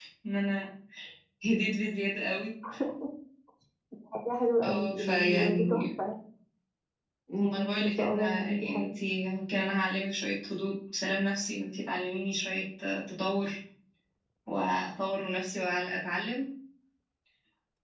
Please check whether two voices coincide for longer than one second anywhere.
Yes, from 4.6 s

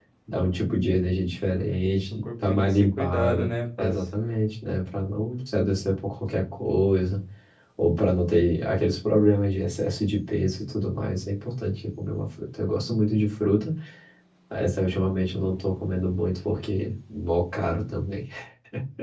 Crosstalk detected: Yes, from 2.1 s

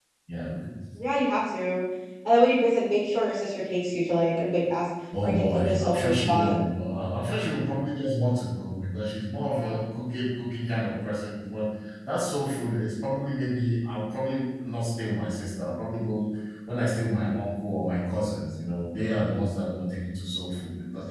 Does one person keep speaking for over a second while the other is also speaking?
Yes, from 5.2 s

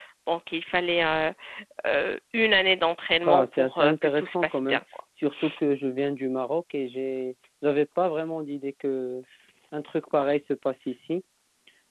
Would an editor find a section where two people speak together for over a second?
Yes, from 3.2 s

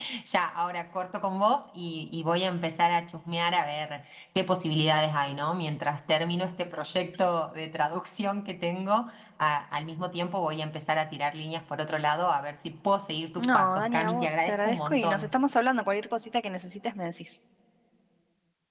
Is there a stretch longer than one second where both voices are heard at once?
Yes, from 13.4 s

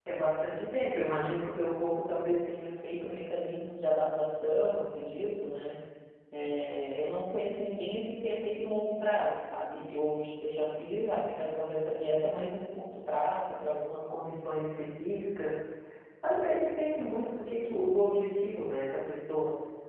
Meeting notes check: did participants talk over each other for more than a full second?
No

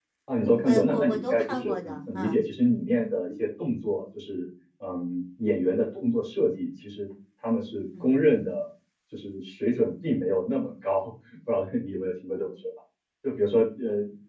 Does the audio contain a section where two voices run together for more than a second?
Yes, from 0.6 s

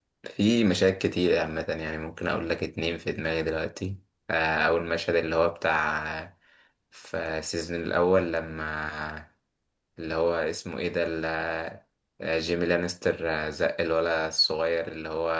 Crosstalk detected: No

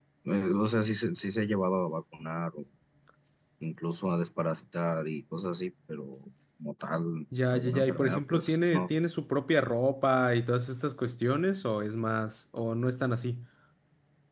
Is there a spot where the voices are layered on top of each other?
Yes, from 7.3 s

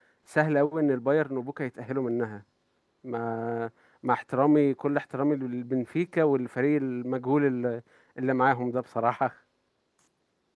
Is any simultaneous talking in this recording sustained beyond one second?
No

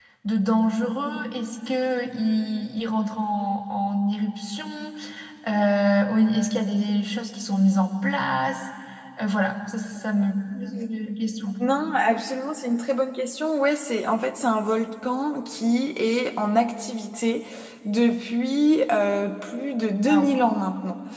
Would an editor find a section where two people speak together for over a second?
No

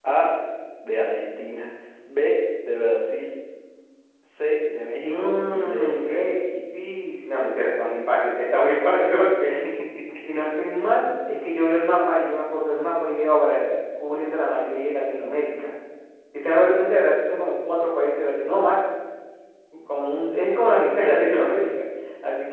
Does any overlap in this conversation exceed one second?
Yes, from 5.0 s

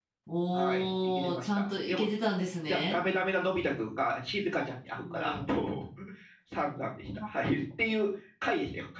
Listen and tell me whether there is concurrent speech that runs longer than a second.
Yes, from 0.5 s

